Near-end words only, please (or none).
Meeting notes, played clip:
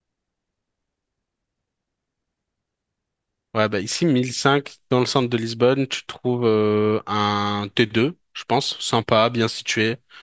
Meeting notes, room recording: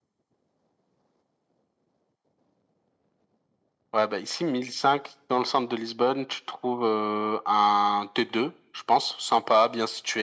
none